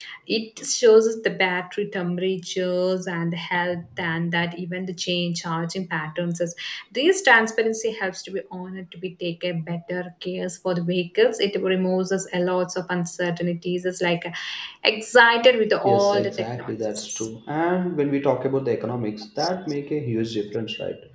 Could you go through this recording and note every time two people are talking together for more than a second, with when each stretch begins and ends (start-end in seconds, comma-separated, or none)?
15.8-17.3